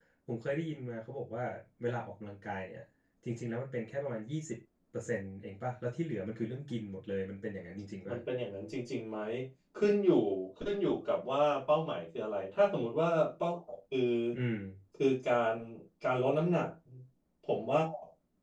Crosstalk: none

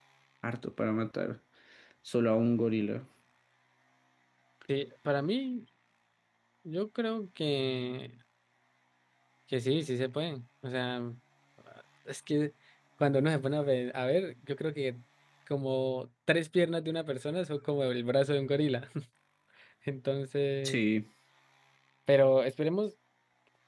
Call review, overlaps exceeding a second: none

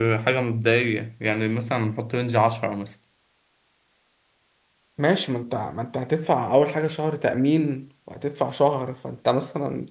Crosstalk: none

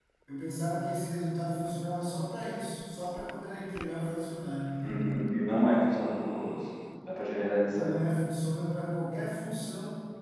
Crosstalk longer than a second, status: none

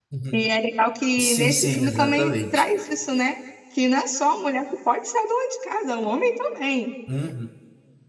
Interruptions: present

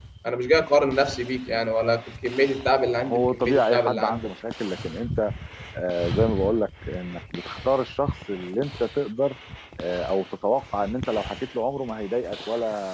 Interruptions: present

